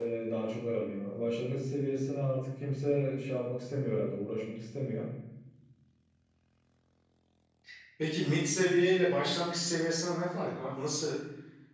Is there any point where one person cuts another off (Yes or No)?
No